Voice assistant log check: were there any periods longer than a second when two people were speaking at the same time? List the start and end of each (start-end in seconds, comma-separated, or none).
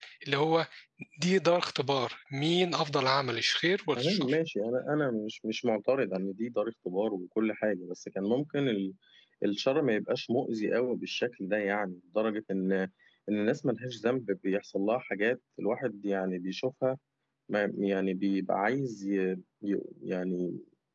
none